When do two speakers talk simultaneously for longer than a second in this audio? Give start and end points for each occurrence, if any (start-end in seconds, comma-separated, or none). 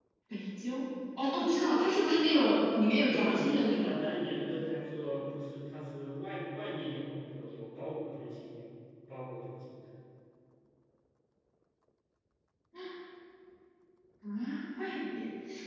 2.3-3.9